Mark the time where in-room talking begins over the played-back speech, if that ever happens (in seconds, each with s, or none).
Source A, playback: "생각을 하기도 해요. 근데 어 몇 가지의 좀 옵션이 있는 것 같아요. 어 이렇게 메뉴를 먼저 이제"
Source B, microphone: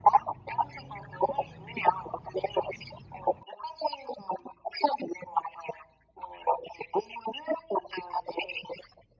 none